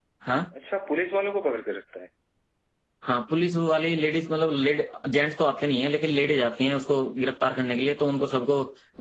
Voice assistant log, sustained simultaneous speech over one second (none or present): none